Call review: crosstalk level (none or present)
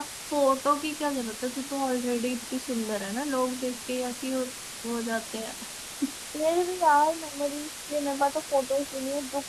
none